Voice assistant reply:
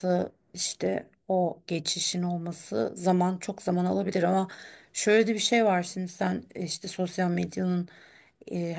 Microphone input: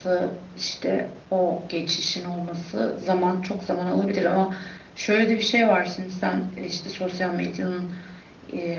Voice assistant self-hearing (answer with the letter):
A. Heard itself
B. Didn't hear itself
A